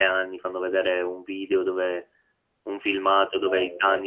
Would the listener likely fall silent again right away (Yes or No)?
Yes